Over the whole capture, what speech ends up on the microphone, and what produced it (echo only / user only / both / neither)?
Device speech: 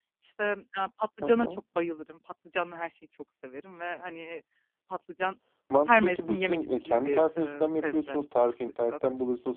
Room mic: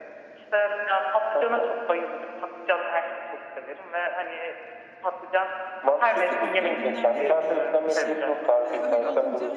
both